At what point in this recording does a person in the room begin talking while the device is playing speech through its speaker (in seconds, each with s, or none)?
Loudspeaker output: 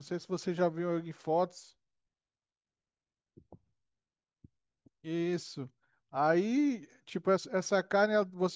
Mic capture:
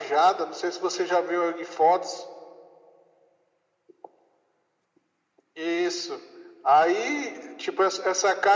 none